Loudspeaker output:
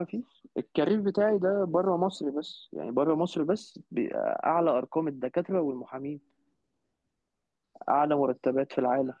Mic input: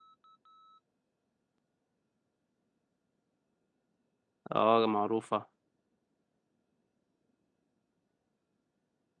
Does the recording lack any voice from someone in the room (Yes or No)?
No